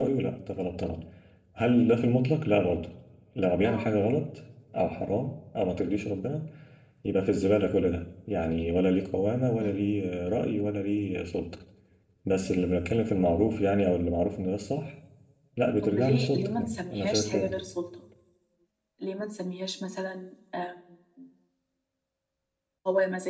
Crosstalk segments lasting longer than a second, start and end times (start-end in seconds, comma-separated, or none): 15.8-17.5